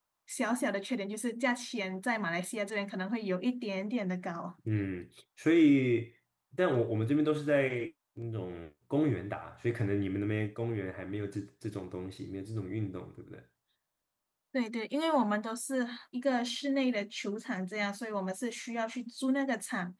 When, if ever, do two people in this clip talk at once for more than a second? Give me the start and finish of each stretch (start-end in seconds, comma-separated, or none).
none